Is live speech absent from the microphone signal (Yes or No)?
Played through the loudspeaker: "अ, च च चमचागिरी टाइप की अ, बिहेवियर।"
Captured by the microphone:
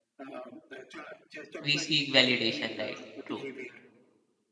No